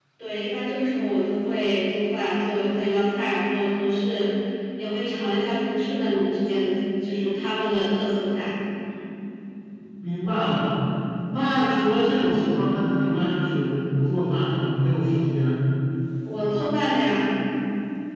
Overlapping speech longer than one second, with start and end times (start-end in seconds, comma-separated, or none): none